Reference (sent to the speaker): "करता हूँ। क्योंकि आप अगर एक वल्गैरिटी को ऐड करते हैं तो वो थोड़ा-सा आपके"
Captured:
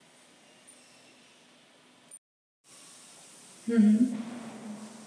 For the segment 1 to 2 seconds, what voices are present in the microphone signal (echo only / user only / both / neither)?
neither